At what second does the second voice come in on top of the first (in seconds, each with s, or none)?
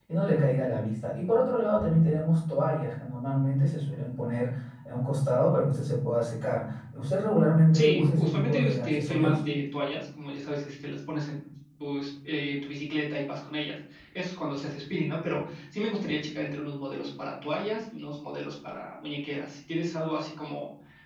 7.7 s